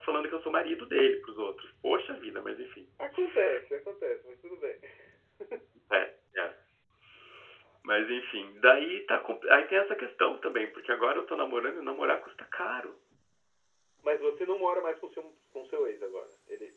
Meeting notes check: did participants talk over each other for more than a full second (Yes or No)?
No